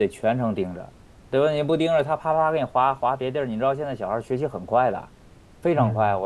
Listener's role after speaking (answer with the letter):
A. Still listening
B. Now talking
A